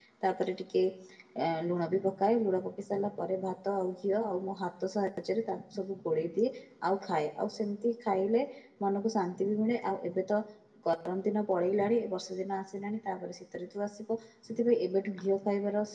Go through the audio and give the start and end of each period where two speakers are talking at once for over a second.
none

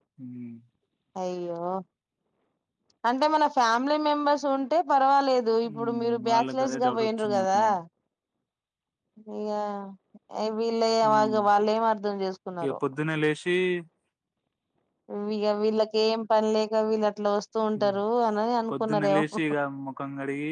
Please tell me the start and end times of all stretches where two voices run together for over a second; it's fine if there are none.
5.7-7.6

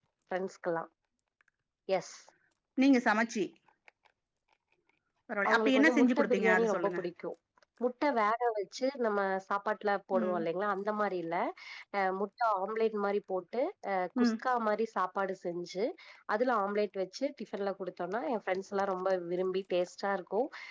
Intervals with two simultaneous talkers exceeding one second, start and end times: 5.5-7.0

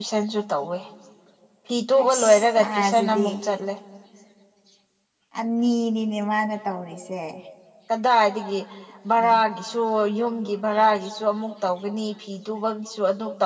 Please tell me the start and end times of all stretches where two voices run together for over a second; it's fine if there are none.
2.0-3.3

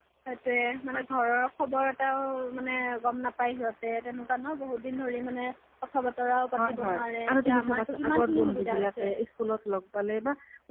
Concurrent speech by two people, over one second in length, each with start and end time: 6.6-9.1

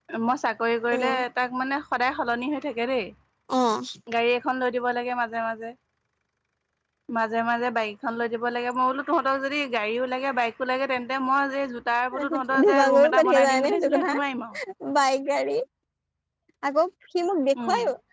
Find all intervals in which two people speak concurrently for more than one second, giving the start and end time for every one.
12.3-14.1

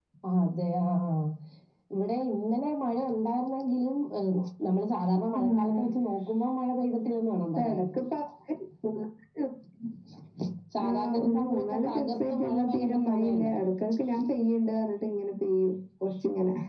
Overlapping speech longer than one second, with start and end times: 10.9-13.5

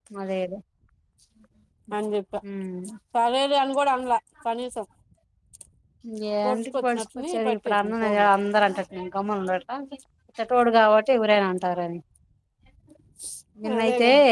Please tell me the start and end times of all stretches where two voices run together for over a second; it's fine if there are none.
6.5-8.3

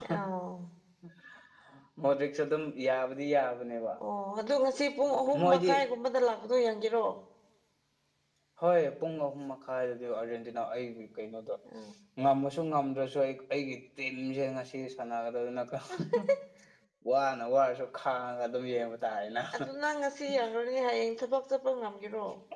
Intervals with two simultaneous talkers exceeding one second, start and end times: none

